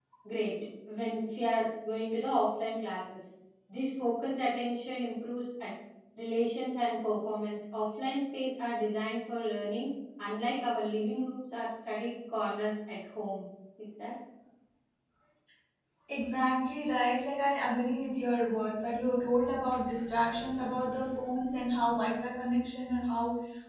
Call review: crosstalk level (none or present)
none